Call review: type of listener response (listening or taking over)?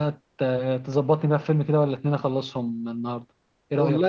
taking over